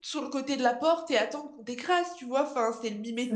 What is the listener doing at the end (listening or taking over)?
listening